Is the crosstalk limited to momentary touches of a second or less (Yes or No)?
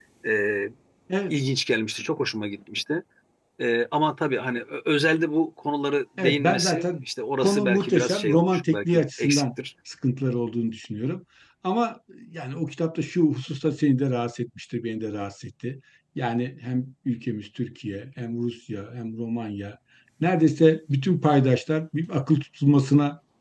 No